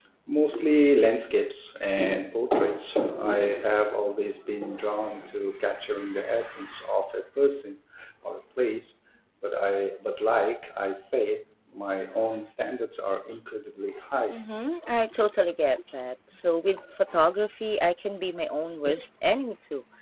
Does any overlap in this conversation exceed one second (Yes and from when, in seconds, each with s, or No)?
No